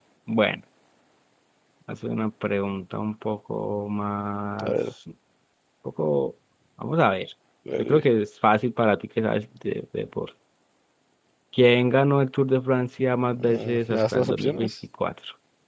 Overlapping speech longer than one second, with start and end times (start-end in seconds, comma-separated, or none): 13.4-14.7